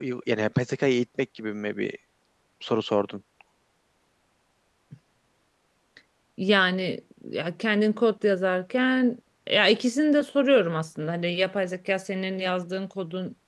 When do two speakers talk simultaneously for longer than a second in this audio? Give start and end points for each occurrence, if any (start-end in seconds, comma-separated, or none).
none